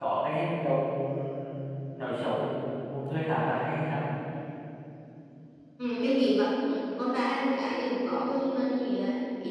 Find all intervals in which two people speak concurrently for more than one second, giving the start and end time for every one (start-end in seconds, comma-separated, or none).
none